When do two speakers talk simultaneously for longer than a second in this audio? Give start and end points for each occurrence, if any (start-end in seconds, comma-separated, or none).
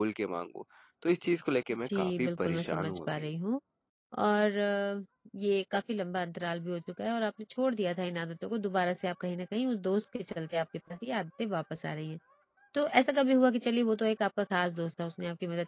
1.9-3.3